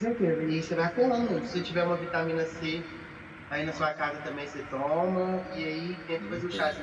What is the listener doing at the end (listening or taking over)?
listening